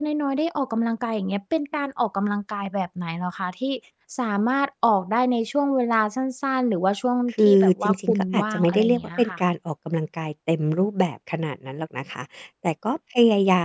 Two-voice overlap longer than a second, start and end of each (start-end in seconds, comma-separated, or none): 7.4-9.4